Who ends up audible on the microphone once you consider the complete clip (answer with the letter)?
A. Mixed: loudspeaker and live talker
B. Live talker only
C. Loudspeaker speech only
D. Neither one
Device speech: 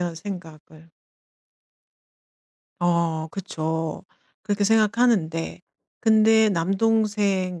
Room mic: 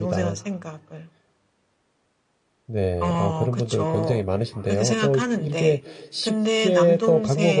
A